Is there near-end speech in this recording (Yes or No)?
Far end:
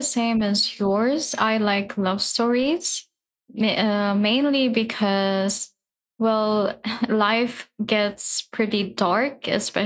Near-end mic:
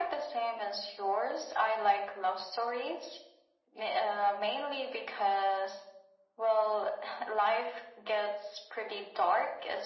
No